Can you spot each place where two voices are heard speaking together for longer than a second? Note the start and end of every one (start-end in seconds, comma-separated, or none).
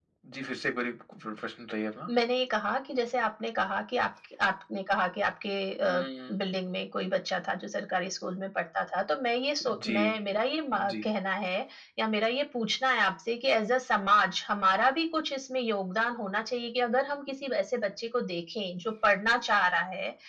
none